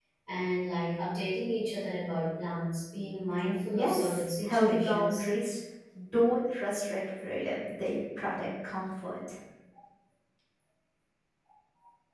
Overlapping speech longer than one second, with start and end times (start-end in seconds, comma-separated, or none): 3.8-5.3